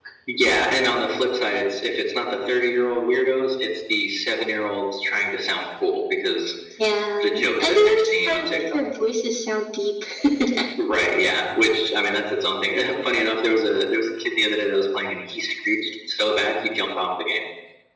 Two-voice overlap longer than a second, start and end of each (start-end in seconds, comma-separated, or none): 7.2-8.9